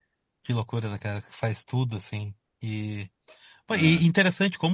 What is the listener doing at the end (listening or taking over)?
listening